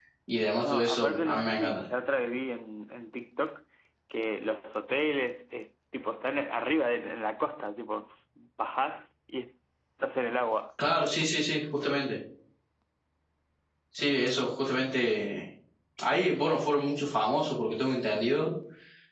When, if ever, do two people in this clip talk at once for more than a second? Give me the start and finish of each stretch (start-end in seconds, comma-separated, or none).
0.6-1.8